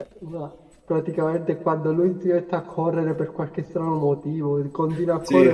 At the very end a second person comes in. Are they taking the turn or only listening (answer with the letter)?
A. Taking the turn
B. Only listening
B